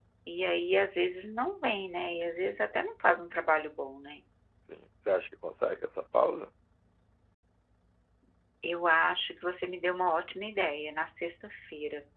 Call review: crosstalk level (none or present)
none